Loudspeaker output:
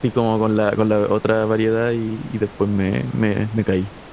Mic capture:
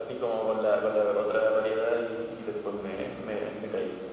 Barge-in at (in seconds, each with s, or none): none